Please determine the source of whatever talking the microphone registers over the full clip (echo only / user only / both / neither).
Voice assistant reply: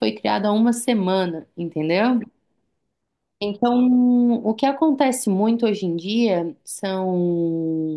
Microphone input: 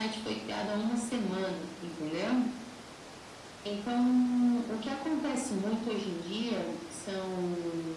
echo only